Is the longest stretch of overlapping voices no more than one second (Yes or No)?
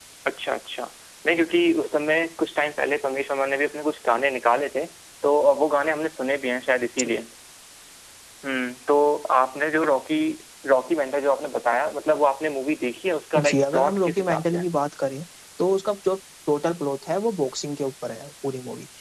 No